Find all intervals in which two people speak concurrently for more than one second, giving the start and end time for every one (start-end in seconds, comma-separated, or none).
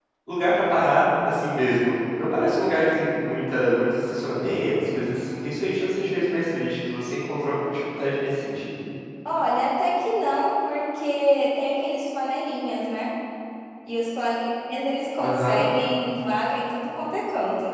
none